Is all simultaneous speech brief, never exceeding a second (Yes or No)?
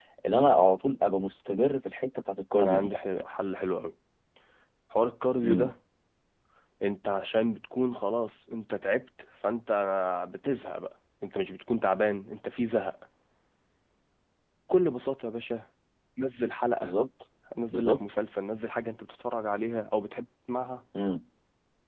Yes